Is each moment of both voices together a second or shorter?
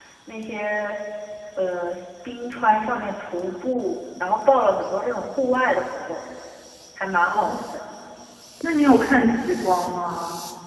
Yes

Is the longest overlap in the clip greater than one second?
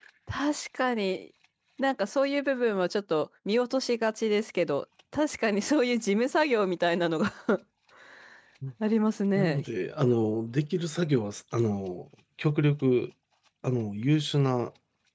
No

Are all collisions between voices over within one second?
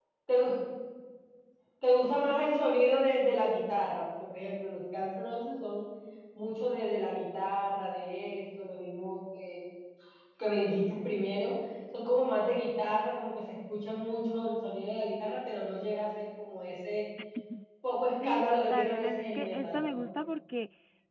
No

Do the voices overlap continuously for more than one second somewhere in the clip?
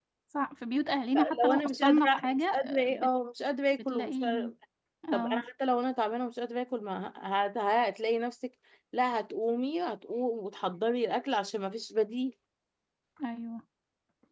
Yes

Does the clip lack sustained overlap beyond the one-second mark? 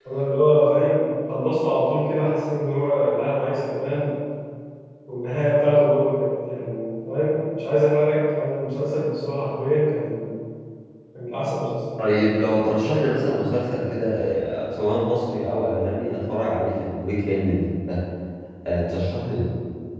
Yes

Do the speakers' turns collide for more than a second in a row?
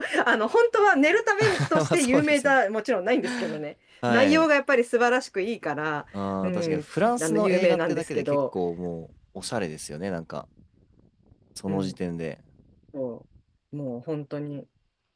Yes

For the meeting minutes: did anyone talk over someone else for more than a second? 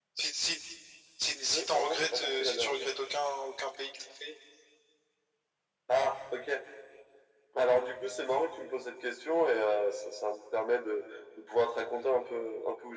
Yes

